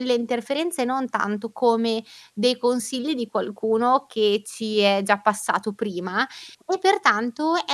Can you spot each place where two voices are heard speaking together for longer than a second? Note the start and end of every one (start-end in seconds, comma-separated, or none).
none